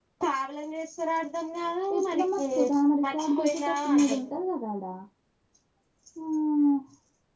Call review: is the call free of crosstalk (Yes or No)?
No